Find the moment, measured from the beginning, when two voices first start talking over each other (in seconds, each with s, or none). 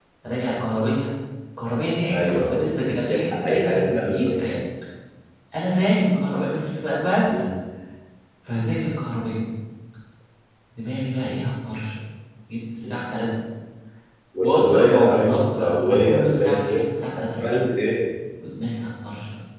2.1 s